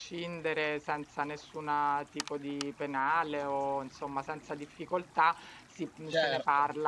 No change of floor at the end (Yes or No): Yes